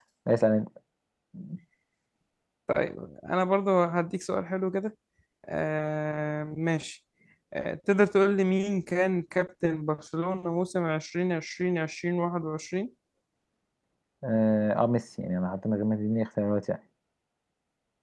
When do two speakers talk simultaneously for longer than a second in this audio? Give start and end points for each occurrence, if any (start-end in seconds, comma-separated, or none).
none